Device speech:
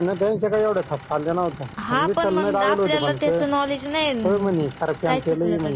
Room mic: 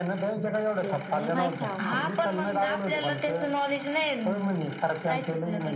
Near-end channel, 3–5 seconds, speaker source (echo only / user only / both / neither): echo only